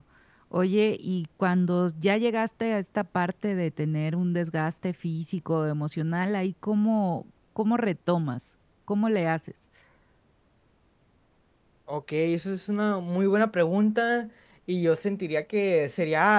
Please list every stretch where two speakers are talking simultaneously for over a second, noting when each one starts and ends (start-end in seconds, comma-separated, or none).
none